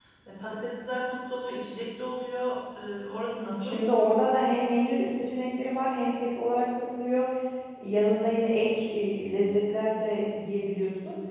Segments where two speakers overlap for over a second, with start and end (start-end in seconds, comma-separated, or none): none